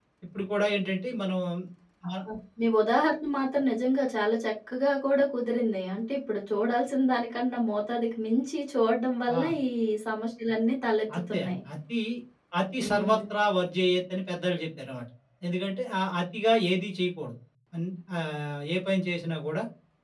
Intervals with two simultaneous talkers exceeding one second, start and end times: none

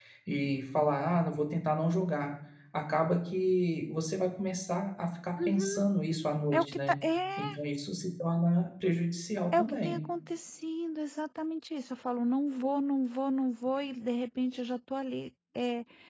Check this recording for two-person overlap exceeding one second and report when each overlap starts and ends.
none

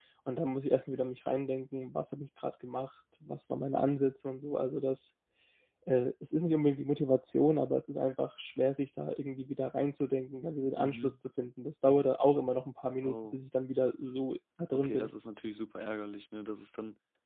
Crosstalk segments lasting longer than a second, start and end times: none

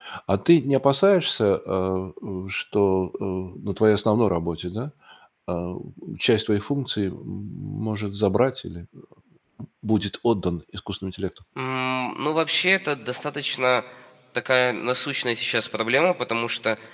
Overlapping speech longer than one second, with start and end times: none

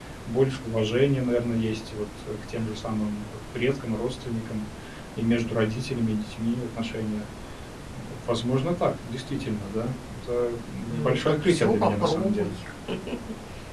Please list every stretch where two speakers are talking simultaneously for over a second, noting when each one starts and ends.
10.9-12.5

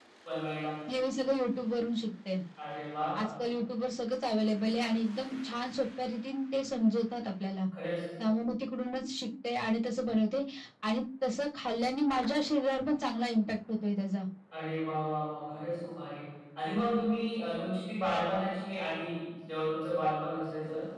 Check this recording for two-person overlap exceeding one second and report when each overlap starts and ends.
none

